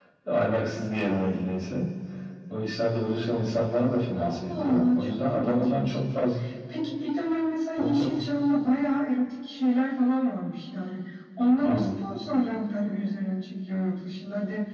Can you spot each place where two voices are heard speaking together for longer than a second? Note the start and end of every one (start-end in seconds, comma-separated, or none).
4.2-6.0